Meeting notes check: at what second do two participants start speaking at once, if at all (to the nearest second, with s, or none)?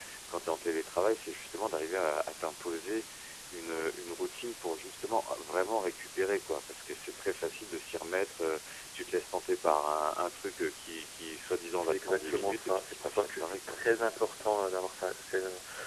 12 s